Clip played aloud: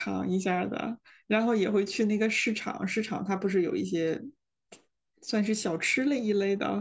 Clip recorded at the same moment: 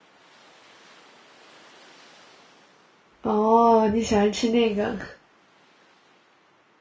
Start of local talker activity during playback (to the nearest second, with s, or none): 3 s